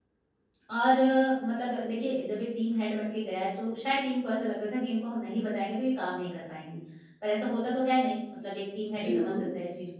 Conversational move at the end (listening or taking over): listening